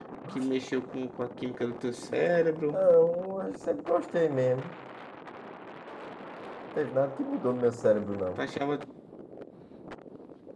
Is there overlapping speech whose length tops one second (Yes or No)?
No